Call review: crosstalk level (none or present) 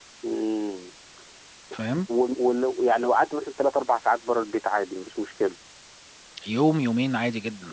none